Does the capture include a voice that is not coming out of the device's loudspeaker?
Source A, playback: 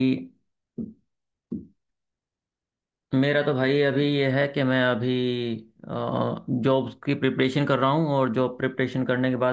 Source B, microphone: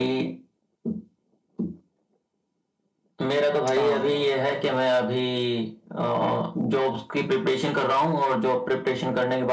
Yes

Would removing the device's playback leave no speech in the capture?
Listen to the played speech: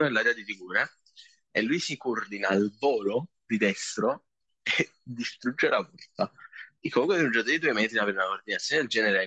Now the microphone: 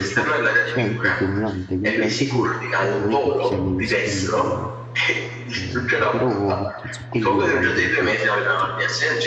No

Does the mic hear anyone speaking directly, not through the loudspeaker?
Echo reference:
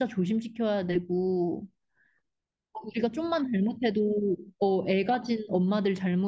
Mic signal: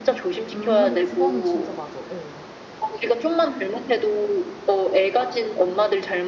Yes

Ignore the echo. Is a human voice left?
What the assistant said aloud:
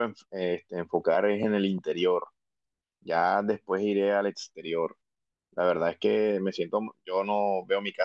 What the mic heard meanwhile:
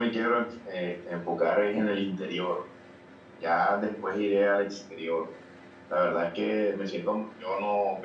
No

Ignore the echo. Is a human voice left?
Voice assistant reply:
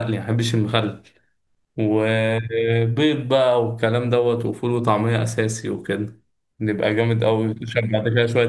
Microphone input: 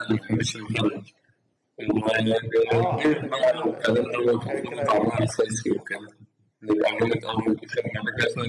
Yes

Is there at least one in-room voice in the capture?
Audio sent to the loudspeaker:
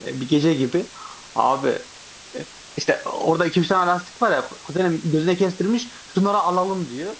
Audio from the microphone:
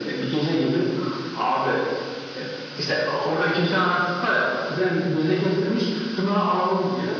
No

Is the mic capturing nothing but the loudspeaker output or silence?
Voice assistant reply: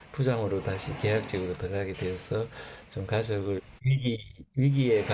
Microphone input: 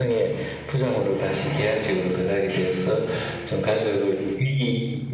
Yes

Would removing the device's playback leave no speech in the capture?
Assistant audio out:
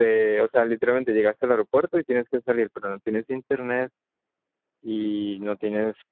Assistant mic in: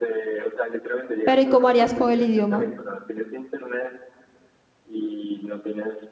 No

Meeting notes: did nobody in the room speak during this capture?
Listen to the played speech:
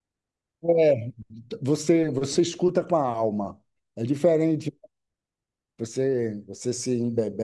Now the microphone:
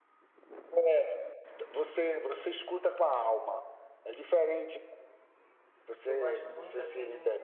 No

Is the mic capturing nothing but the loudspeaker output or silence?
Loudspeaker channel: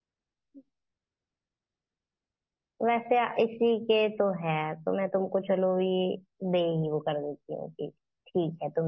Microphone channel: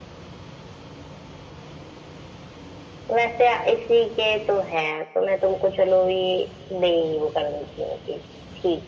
Yes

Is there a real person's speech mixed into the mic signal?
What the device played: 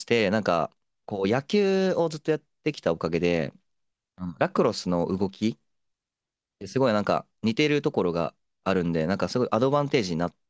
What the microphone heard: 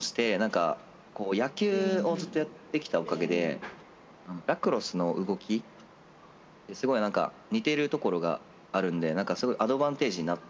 Yes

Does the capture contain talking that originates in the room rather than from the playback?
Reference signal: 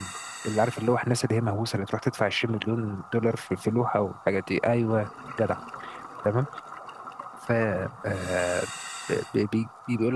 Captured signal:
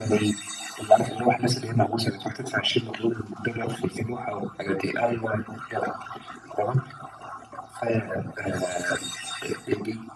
No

